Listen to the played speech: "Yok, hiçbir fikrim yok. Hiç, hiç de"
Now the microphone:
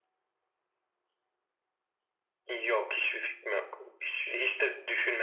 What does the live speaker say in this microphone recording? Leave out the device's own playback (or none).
none